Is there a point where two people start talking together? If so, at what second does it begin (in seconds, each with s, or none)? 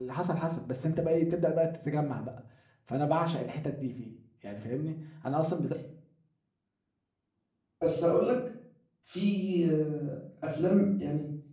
none